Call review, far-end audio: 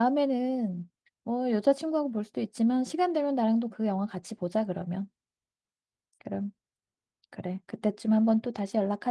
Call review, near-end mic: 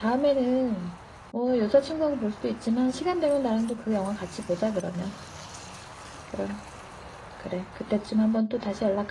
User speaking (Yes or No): No